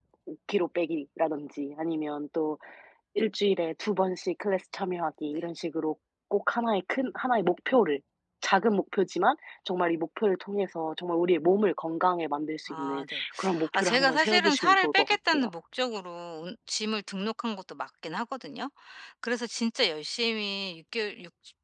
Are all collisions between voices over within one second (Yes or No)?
No